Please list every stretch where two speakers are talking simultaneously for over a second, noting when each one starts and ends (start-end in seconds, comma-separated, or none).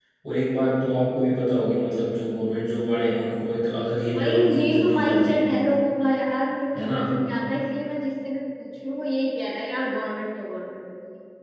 4.1-5.5